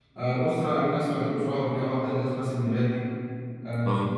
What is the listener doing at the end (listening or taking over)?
listening